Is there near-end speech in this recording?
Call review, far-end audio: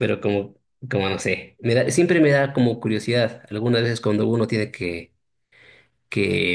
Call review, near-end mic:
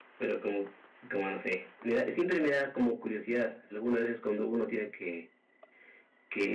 No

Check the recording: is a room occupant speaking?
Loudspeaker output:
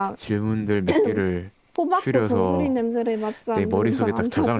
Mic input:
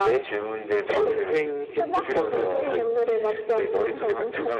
Yes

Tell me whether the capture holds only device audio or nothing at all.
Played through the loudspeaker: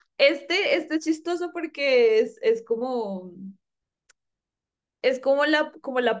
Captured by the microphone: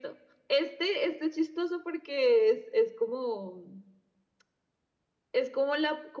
Yes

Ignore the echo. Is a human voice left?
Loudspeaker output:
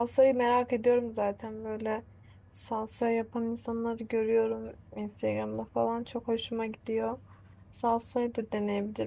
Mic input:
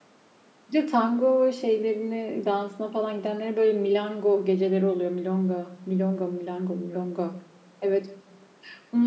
Yes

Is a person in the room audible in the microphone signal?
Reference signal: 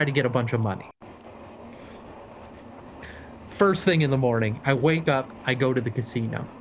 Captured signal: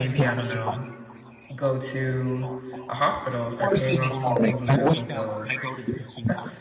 Yes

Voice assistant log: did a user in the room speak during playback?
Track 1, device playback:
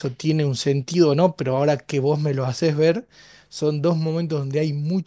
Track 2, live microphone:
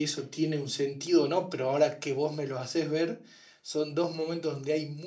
No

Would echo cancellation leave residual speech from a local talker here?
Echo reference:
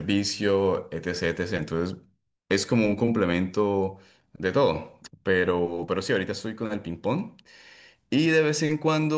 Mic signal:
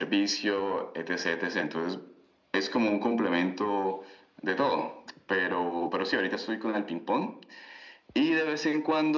No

